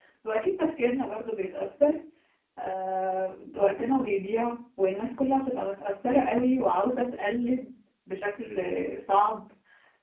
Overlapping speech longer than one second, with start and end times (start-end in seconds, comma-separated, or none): none